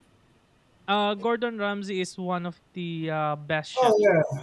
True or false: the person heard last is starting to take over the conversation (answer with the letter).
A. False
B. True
B